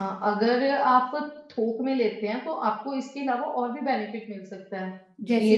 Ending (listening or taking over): listening